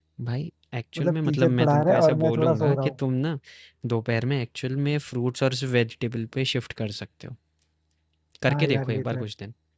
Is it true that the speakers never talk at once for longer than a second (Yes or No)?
No